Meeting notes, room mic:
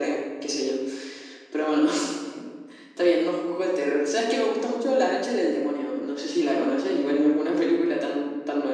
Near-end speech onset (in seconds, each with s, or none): none